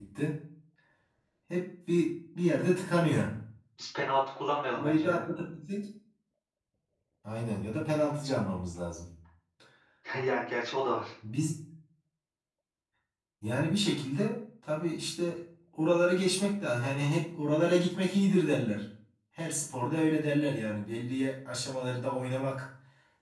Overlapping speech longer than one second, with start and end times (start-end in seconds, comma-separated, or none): none